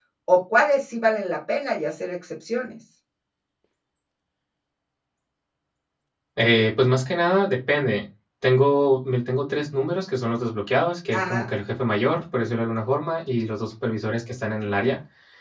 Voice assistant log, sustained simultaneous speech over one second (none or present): none